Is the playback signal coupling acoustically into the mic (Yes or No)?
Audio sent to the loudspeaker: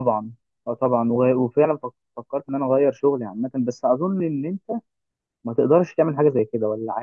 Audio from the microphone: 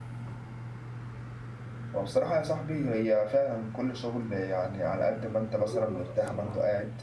No